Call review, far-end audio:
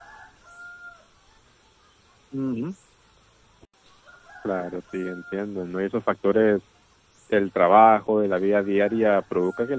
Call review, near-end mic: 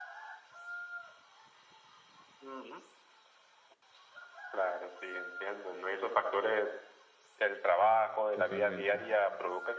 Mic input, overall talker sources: both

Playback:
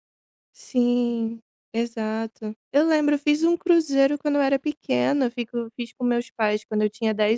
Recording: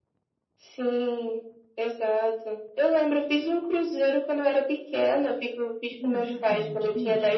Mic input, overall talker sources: both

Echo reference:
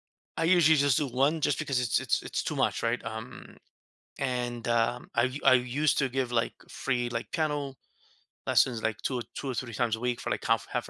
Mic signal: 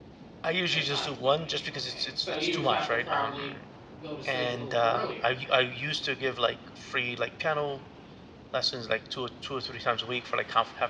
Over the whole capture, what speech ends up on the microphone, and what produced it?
both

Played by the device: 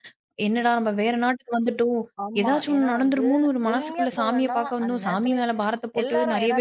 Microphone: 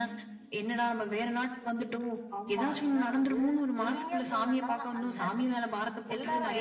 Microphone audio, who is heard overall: echo only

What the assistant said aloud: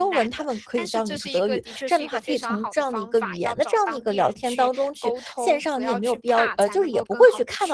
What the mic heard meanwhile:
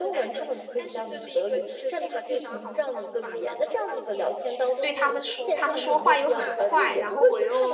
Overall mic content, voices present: both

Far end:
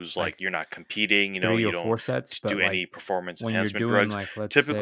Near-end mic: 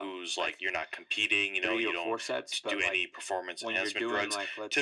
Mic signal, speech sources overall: echo only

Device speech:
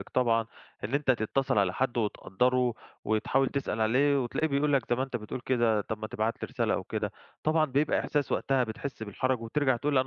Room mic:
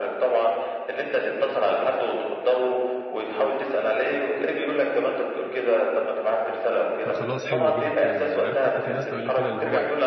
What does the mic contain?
both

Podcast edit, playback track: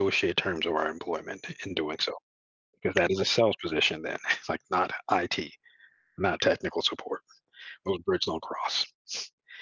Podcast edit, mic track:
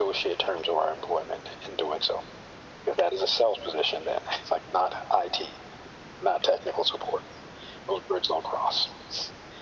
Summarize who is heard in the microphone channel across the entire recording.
echo only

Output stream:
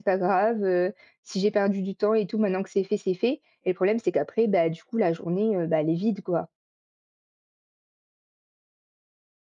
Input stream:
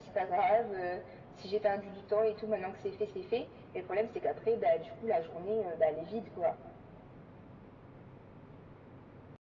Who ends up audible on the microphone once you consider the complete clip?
echo only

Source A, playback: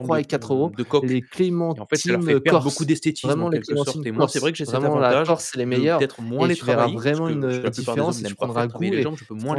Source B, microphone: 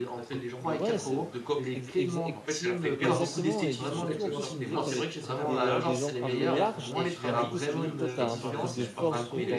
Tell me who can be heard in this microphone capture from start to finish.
both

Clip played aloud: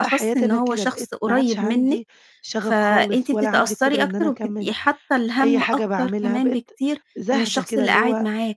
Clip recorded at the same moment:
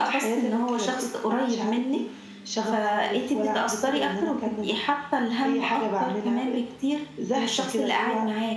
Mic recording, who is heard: echo only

